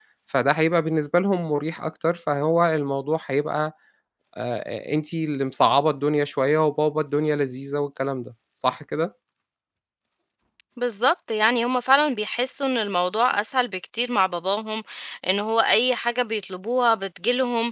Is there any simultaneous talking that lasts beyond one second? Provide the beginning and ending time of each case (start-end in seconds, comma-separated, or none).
none